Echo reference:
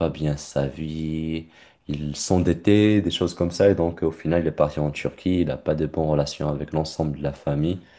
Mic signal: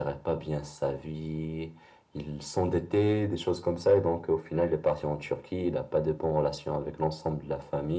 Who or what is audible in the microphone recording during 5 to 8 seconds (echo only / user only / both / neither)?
echo only